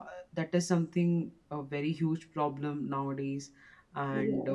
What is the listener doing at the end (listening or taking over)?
listening